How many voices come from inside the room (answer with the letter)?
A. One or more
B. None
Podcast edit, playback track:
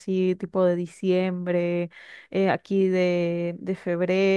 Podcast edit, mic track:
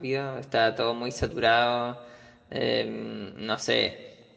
A